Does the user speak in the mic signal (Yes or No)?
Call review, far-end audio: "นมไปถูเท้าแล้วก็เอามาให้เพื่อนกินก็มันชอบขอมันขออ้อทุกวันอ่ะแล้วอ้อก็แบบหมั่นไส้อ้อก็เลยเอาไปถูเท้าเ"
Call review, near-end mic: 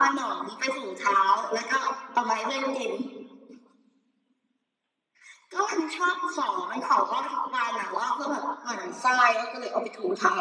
No